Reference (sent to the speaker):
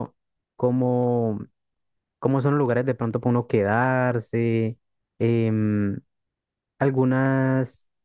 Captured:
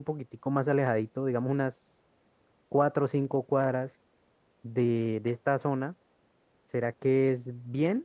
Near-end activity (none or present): present